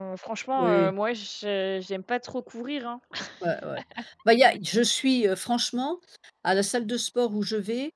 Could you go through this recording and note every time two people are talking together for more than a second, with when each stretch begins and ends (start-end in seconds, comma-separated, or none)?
none